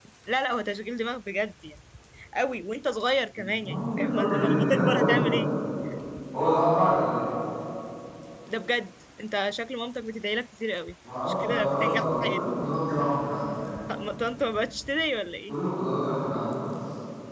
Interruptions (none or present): present